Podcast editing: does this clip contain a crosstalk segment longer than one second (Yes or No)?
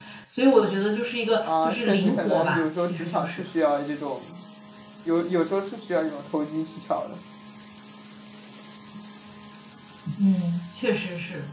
Yes